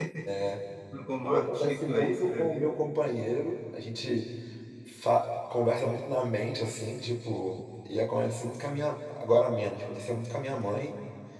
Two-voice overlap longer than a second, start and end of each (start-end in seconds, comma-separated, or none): 1.2-2.7